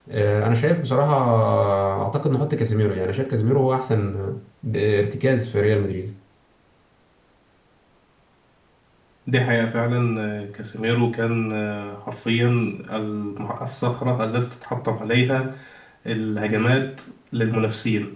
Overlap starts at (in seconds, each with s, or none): none